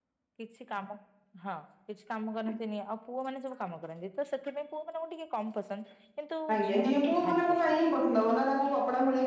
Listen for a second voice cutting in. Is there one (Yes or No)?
Yes